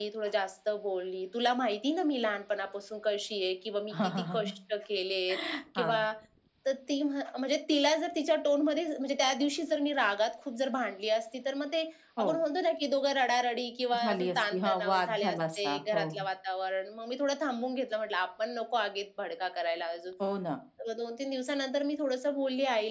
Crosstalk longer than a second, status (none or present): present